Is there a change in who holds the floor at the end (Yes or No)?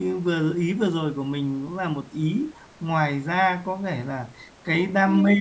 No